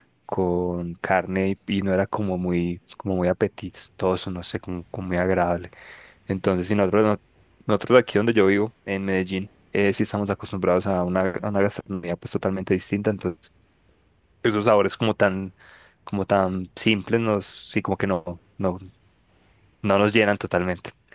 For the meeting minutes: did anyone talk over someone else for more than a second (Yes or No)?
No